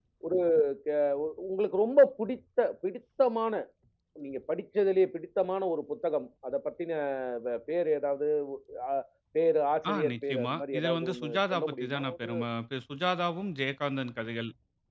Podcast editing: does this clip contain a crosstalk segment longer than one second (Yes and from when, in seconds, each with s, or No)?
Yes, from 9.9 s